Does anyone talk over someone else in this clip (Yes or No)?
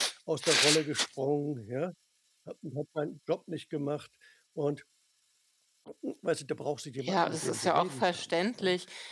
Yes